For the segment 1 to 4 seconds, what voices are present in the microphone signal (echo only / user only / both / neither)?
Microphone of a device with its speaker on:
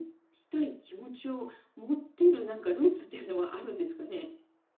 echo only